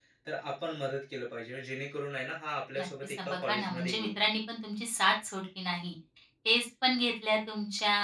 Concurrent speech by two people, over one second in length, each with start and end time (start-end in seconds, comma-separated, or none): 2.8-4.2